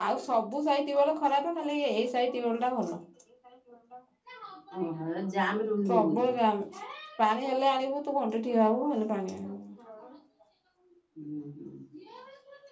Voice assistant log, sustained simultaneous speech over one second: none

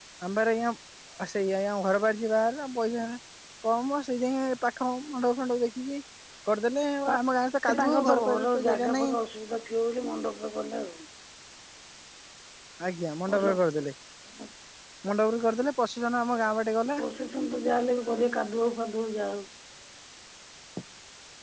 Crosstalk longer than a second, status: present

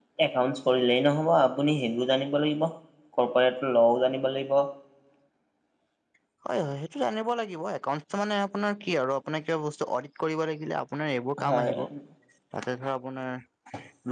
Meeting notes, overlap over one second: none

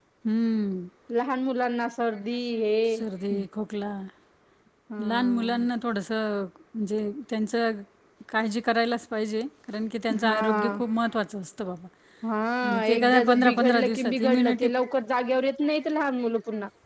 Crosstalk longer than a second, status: present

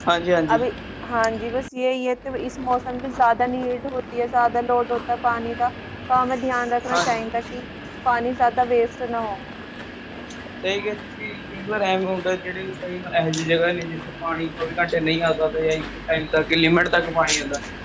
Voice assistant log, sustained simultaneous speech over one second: none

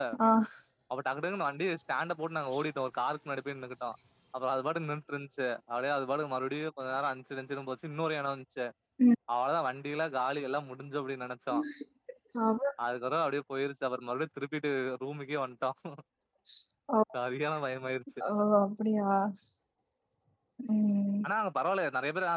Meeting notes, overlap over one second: none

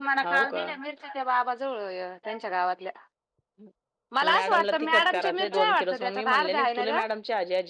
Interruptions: present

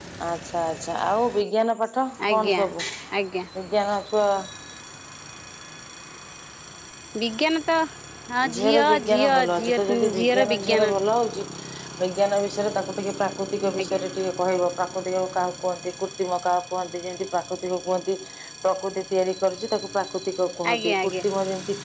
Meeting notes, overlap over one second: present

